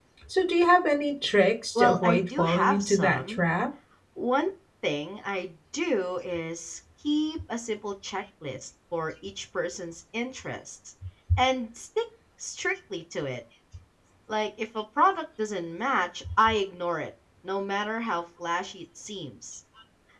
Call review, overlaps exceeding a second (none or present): present